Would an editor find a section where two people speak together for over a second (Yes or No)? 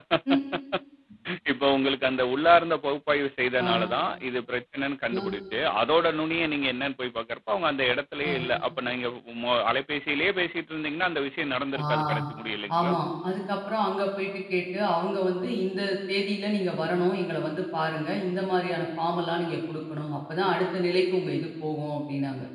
No